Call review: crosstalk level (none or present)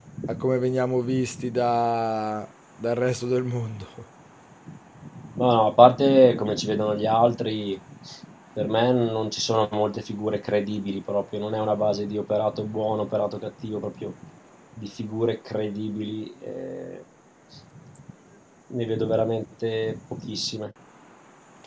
none